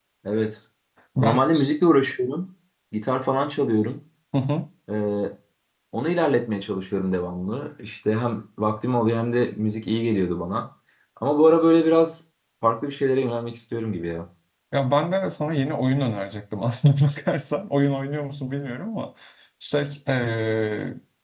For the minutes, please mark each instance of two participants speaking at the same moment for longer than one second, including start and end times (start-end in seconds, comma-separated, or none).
none